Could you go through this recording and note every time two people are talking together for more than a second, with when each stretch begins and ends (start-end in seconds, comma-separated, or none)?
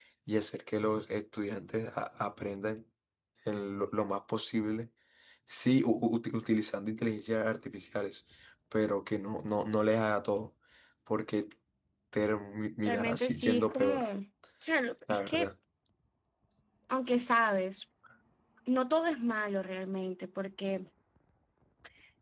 12.8-14.1